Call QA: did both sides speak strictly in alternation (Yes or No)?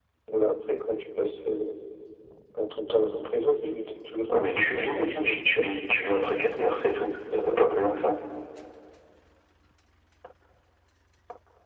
No